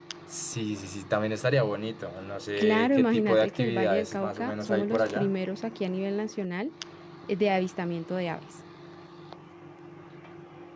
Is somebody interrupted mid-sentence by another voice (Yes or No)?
Yes